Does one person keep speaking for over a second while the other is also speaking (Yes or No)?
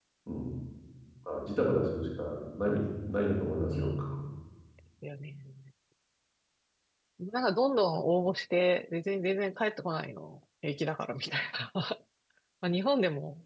No